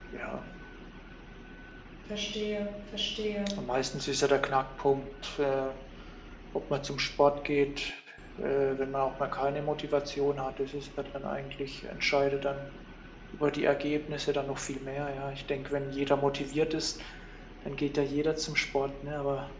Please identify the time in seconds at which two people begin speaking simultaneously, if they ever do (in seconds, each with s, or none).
none